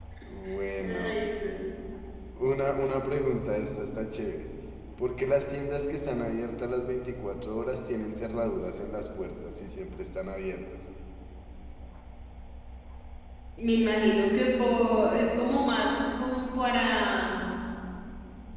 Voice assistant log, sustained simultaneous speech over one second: none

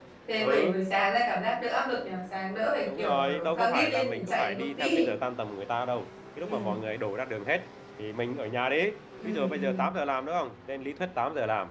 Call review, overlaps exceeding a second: present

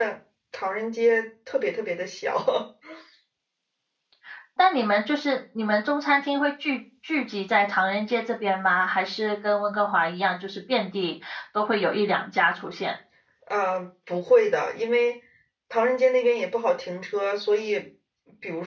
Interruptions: none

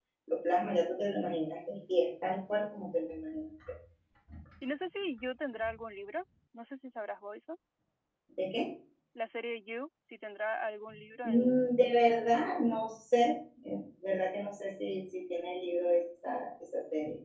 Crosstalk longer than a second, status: none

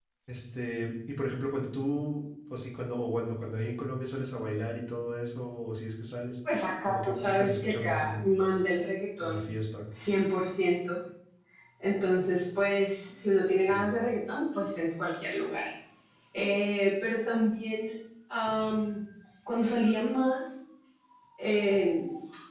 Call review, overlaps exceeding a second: present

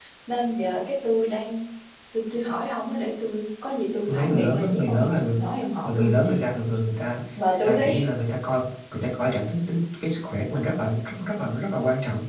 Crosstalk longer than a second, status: present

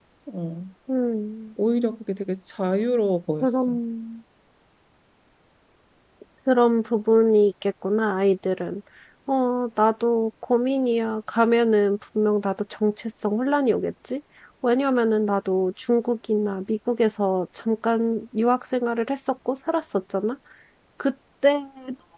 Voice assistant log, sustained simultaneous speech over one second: none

